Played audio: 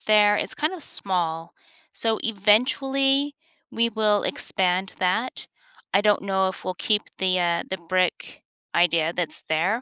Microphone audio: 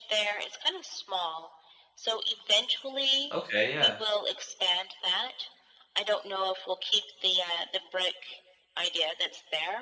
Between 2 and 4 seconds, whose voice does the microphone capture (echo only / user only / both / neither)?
both